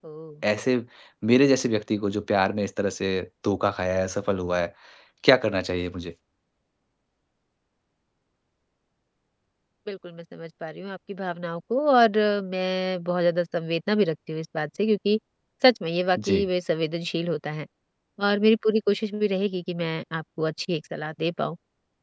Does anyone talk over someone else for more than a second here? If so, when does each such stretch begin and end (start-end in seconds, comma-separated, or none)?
none